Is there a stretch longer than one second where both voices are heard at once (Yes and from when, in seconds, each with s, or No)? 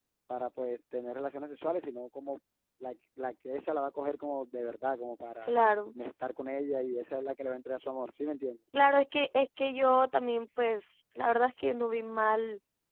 No